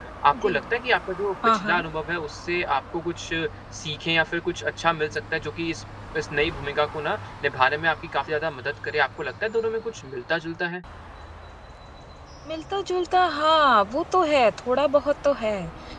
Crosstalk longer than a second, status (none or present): none